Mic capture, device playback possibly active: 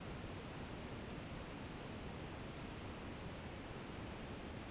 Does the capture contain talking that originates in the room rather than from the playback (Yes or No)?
No